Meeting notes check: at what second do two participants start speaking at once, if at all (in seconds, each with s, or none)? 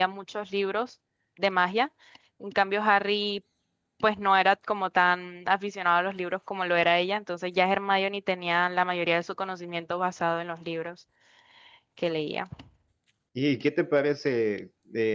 none